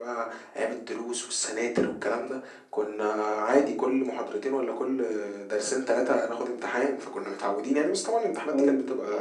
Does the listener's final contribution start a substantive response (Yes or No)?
Yes